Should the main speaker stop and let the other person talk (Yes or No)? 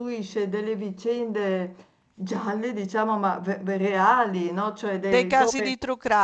Yes